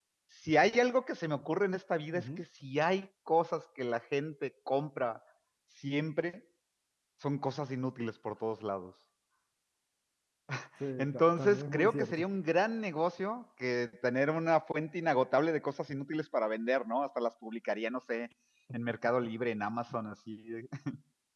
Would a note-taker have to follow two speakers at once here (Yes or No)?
Yes